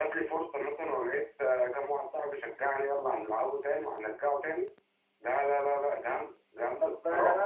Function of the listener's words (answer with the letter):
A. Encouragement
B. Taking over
B